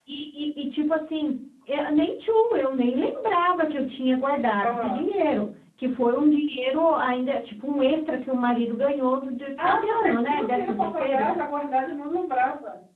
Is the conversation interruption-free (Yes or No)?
No